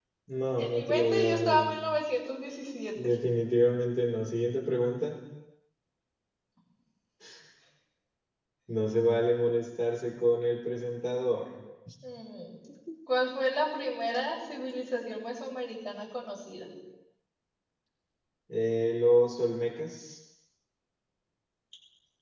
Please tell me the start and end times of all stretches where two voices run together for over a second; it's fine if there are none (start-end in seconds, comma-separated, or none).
0.6-1.8